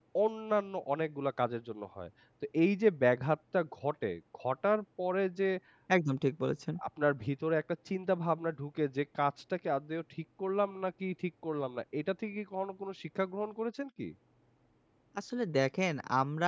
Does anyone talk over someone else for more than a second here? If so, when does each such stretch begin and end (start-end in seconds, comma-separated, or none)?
none